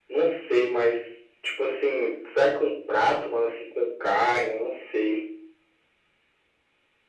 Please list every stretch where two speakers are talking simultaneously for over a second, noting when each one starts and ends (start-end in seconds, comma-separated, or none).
none